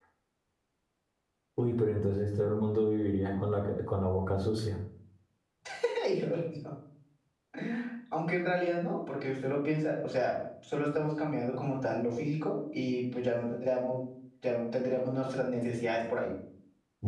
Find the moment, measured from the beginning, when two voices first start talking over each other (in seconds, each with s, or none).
none